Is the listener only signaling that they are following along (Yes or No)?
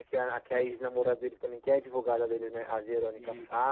Yes